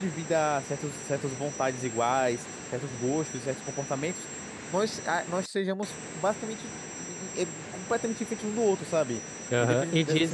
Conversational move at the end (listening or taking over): taking over